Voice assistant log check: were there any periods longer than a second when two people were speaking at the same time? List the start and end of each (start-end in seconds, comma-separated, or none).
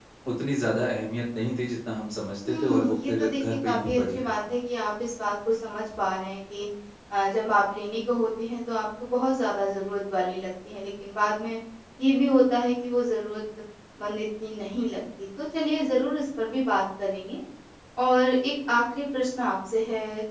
2.5-4.3